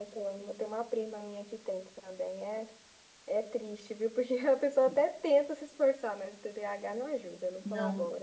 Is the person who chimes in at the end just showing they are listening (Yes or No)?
No